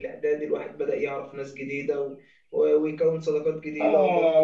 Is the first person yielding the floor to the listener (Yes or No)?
Yes